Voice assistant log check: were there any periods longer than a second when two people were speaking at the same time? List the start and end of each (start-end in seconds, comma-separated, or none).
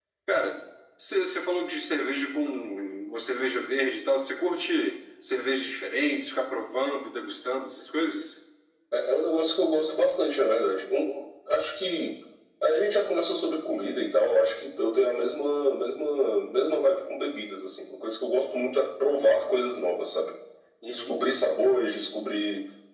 none